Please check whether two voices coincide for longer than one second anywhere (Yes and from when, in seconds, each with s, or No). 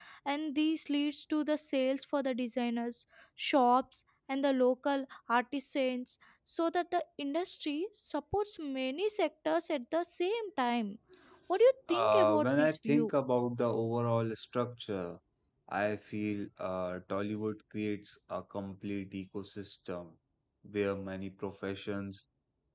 Yes, from 11.9 s